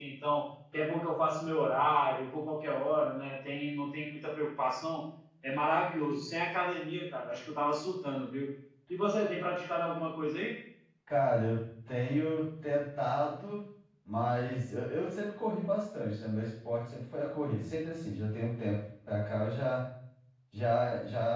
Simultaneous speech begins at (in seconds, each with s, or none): none